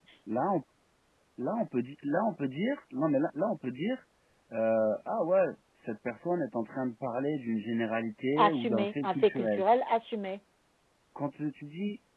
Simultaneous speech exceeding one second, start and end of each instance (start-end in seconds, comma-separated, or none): 8.4-9.6